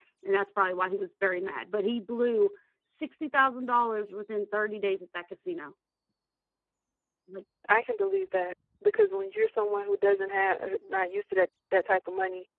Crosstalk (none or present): none